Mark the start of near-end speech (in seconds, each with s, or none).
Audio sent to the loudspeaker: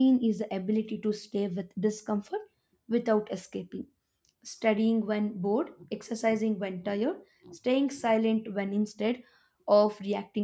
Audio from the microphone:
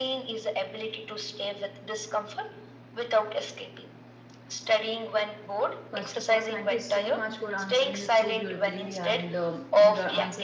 5.9 s